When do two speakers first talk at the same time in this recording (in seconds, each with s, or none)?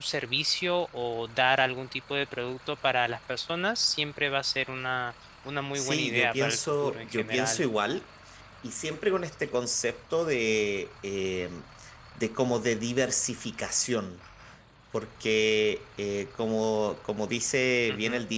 5.8 s